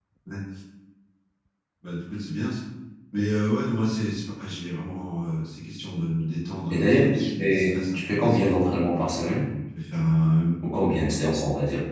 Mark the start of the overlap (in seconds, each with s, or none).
6.7 s